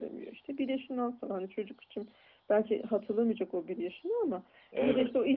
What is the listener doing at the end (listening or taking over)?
listening